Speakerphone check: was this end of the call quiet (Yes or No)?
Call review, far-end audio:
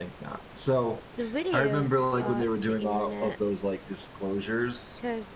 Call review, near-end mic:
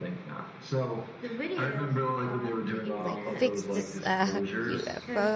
No